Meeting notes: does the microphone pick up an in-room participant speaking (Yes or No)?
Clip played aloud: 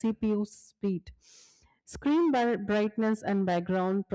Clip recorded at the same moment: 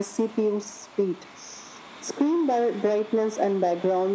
No